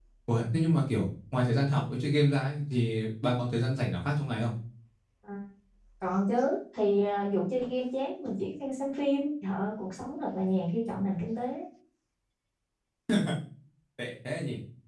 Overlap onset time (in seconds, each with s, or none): none